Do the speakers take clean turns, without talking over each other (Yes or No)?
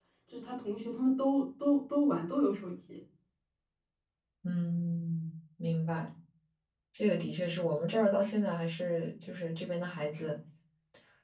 Yes